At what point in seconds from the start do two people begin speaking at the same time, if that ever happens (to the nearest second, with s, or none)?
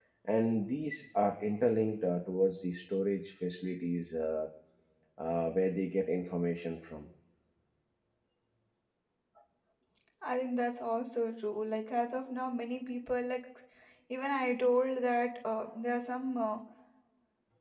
none